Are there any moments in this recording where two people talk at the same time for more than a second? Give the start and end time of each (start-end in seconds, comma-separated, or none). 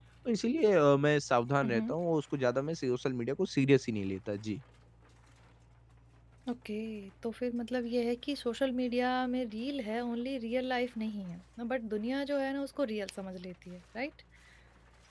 none